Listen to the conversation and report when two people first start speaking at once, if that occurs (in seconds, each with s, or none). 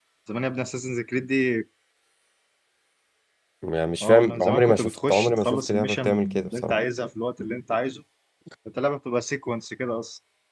4.0 s